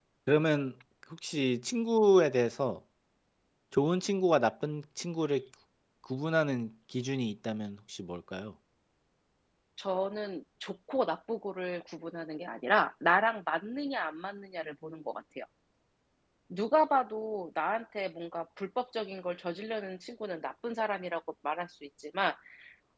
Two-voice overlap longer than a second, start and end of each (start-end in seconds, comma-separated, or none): none